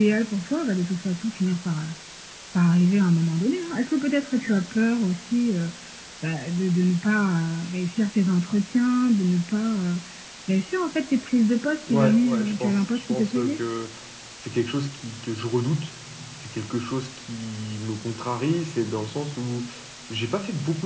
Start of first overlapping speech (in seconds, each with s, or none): 11.9 s